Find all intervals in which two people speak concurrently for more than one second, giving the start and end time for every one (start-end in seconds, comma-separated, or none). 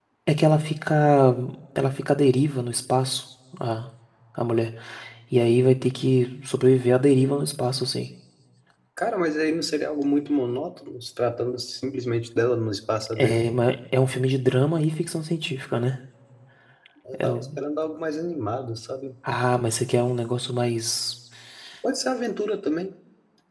none